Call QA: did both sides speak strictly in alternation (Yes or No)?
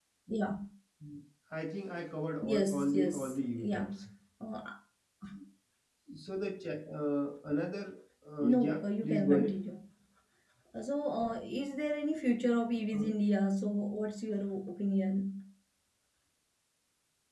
No